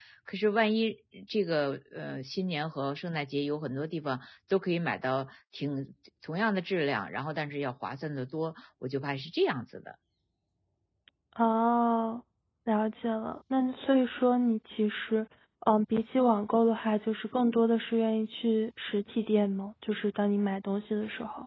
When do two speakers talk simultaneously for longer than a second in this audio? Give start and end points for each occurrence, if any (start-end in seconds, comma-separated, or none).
none